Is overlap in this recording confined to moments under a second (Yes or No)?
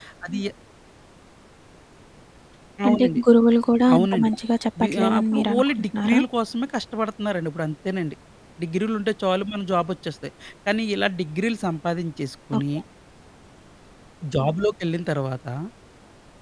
No